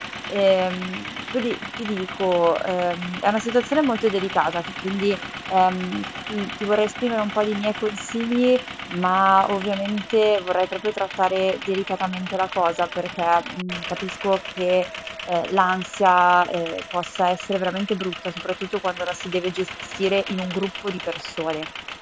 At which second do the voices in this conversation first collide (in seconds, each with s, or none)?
none